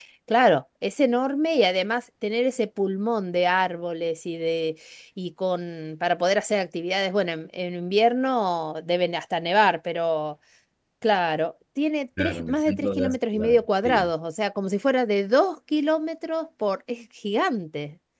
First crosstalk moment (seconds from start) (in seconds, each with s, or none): 12.2 s